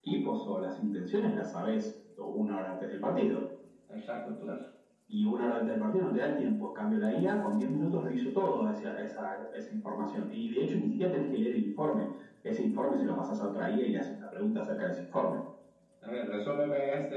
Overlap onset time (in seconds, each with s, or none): none